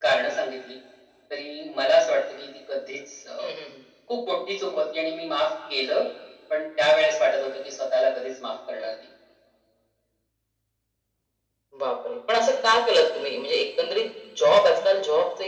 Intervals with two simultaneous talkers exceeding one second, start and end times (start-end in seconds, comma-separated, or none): none